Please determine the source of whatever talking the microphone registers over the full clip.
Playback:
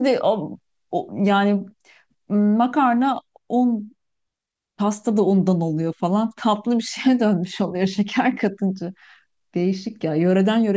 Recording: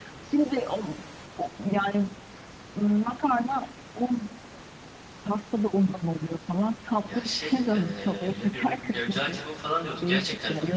both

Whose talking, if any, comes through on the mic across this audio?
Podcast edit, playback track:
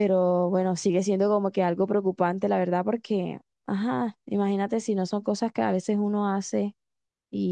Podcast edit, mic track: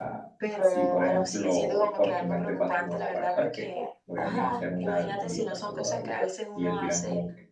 both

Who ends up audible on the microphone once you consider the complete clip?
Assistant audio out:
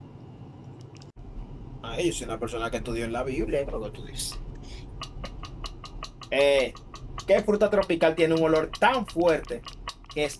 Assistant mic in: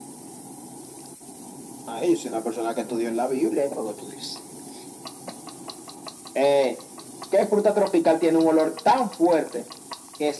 echo only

